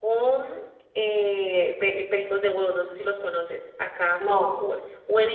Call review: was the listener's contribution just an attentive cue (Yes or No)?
Yes